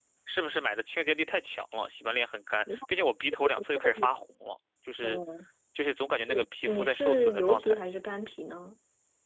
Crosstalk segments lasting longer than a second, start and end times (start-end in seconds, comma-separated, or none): 6.3-7.8